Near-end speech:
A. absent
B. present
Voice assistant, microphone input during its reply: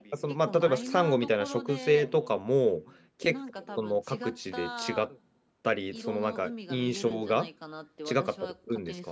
B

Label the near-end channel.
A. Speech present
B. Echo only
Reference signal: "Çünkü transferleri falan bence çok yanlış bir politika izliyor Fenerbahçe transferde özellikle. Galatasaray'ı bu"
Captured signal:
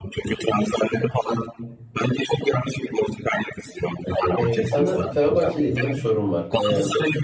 A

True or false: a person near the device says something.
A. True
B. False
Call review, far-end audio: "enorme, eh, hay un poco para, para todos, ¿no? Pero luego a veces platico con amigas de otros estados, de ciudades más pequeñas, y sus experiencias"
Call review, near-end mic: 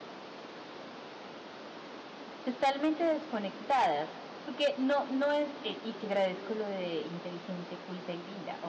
A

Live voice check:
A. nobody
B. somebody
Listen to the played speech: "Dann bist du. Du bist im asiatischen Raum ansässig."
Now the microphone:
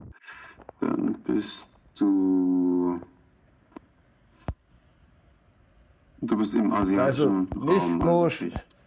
B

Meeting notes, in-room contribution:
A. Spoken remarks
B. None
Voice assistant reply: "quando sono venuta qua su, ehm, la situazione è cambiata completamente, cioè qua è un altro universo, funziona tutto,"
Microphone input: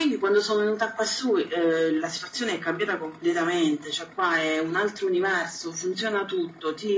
B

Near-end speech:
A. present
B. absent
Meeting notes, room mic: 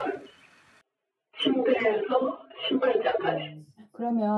A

